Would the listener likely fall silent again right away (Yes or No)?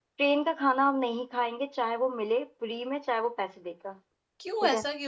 No